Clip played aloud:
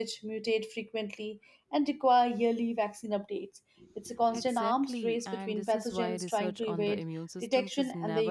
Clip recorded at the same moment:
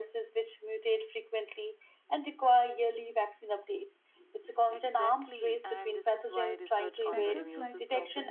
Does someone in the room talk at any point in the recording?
Yes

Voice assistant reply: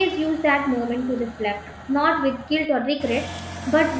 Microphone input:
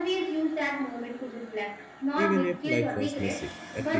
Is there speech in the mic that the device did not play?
Yes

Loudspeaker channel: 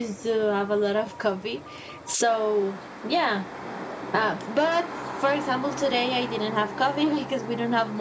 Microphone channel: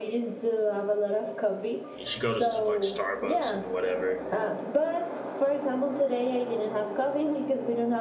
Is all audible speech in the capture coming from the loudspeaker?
No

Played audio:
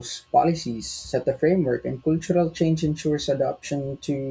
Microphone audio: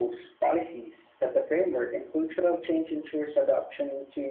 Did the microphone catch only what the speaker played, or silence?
Yes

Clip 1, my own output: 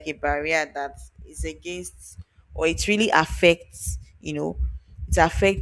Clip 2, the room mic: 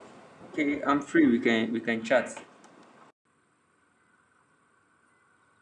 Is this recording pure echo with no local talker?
No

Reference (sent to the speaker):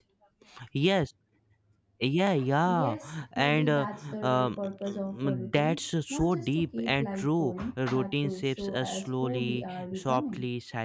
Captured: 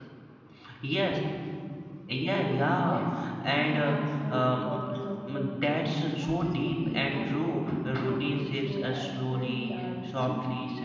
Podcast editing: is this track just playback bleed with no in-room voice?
Yes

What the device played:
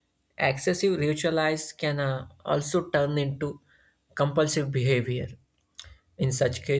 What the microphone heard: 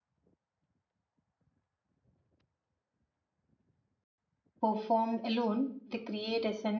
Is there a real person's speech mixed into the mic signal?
Yes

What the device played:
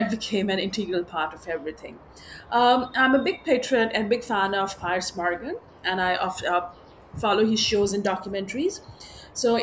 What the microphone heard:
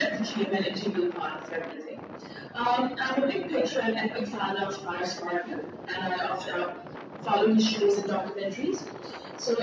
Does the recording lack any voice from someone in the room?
Yes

